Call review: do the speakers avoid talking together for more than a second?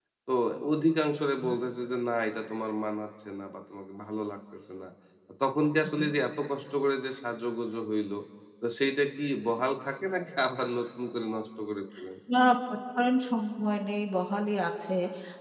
Yes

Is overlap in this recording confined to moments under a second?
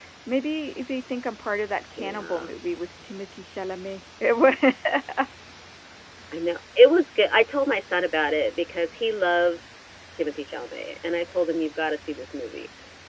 Yes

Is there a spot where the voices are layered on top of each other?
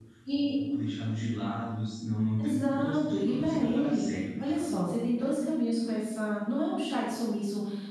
Yes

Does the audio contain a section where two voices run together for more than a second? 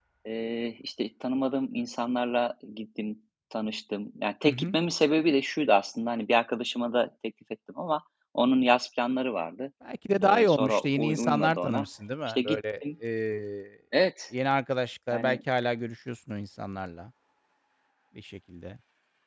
Yes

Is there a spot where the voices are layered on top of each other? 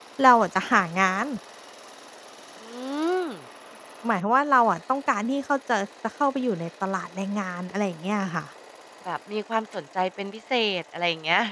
No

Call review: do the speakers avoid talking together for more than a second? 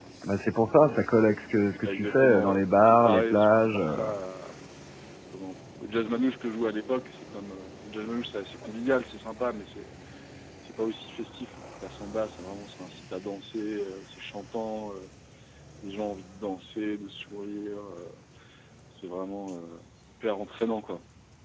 No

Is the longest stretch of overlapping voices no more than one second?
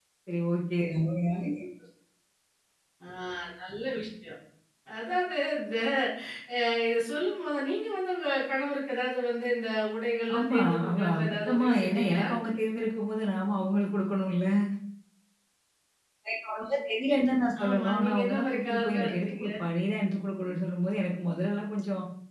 No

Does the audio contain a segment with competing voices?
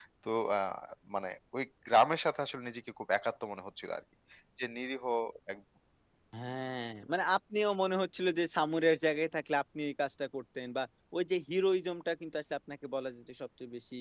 No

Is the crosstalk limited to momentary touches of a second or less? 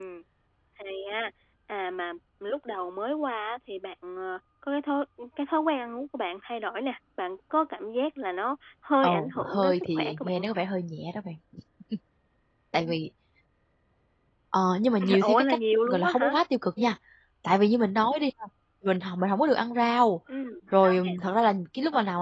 No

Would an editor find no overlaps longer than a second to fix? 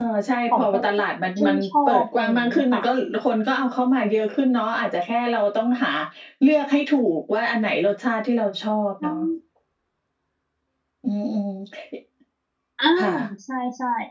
No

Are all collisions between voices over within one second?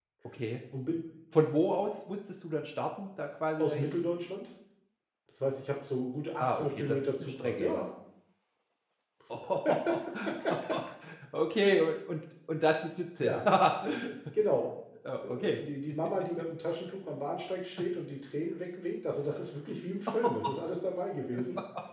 No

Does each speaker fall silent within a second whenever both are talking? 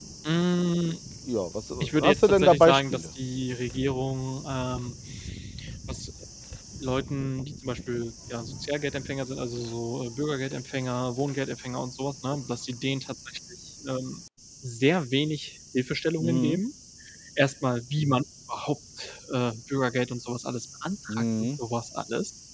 No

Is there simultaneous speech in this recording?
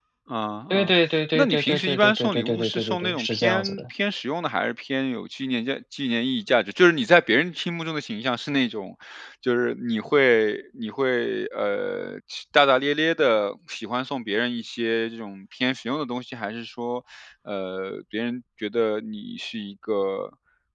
Yes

